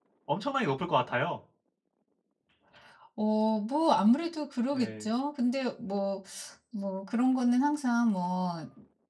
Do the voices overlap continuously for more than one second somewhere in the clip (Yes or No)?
No